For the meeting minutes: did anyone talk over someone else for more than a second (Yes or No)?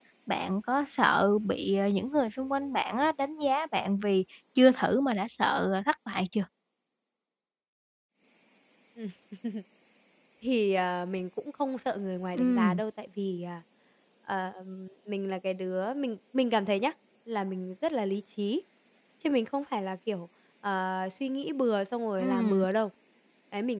No